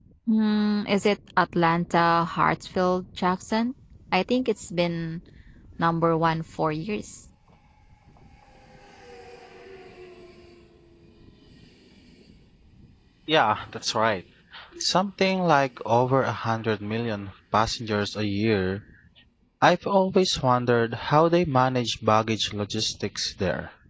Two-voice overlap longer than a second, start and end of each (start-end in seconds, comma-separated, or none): none